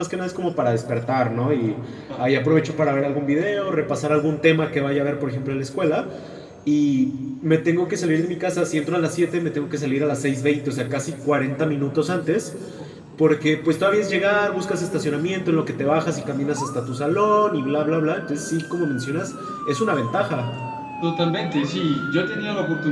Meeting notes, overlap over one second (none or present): none